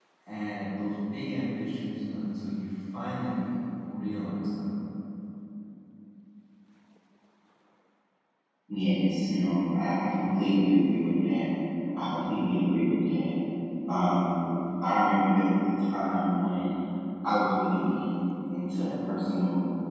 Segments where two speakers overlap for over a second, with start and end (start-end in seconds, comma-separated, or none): none